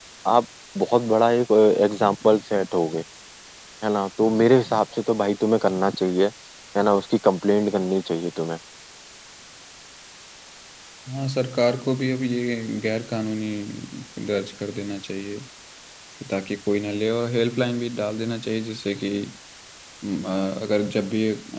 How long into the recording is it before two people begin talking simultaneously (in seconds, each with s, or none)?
none